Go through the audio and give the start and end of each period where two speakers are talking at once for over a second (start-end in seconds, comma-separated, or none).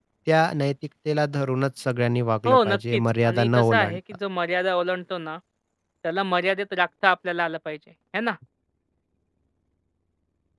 2.5-4.0